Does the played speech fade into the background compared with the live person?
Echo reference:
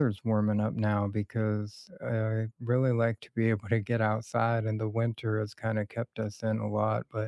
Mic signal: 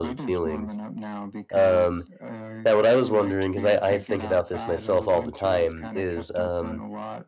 Yes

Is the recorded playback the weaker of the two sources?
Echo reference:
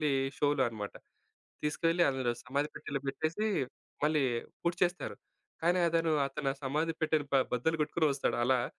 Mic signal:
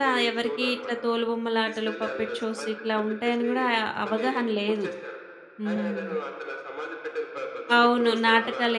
Yes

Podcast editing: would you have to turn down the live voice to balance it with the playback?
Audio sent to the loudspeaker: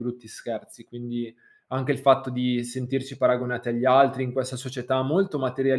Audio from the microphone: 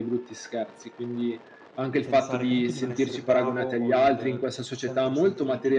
No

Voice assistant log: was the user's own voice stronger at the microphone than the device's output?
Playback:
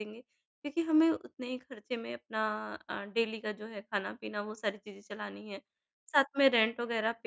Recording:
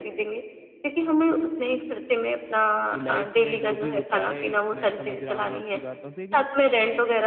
No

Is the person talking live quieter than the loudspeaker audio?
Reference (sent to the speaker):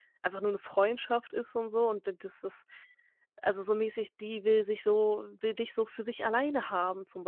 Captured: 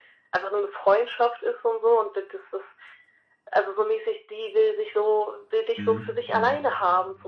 Yes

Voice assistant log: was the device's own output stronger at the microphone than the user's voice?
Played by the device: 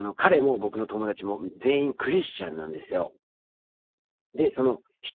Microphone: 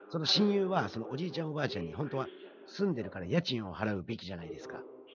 No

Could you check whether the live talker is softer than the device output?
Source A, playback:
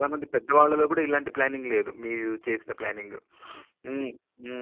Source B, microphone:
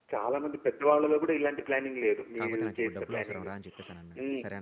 Yes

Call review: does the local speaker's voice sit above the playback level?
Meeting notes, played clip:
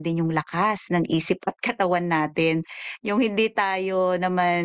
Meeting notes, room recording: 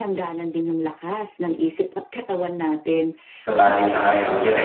Yes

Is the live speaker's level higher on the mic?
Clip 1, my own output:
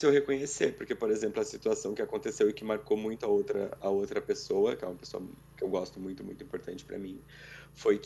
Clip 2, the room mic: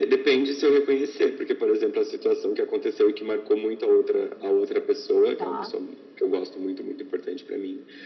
No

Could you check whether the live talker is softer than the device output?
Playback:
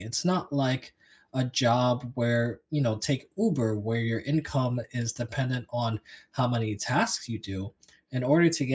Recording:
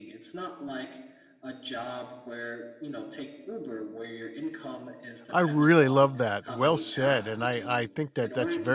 No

